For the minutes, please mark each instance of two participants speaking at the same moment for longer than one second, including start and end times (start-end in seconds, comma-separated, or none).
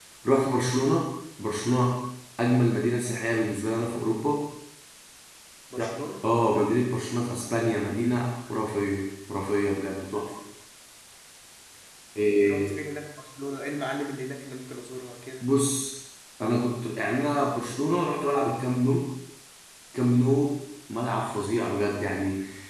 none